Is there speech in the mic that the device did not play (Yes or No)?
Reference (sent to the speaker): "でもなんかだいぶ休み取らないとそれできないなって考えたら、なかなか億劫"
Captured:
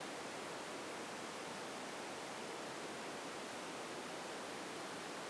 No